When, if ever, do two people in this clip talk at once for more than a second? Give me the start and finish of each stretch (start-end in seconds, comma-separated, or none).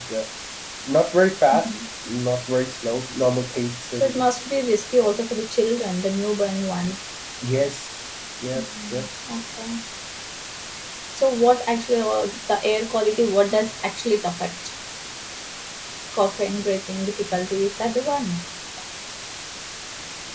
none